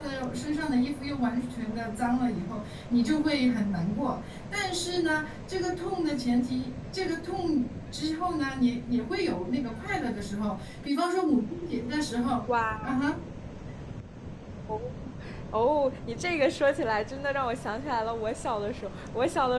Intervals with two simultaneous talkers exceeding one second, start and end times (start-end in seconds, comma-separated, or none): none